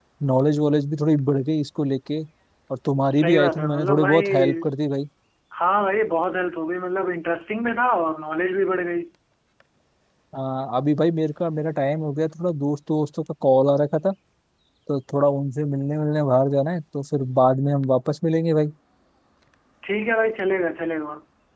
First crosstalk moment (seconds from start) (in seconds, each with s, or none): 3.1 s